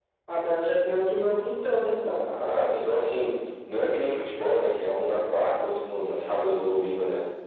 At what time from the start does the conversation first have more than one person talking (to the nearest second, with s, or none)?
none